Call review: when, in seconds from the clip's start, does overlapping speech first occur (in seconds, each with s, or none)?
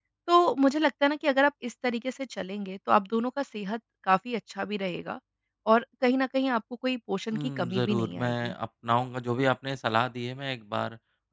7.3 s